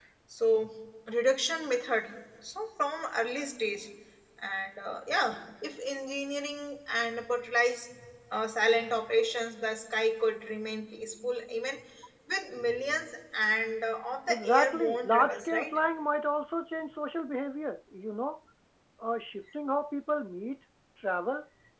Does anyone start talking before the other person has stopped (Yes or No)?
Yes